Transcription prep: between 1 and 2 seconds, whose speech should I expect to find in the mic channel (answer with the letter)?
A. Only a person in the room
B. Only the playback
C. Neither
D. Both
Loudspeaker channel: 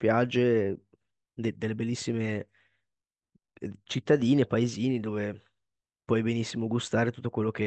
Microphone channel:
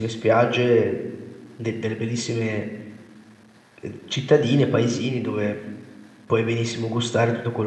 B